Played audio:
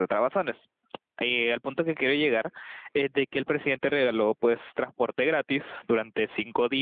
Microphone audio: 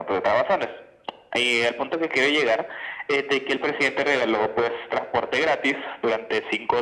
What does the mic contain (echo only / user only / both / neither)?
echo only